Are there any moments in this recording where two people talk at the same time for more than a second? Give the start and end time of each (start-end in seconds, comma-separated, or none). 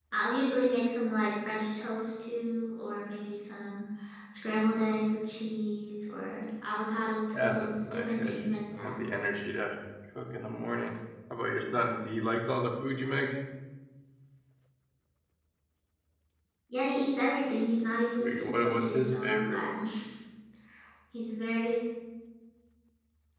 7.3-9.0, 18.2-19.8